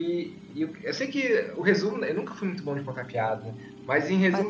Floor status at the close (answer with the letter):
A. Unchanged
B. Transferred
A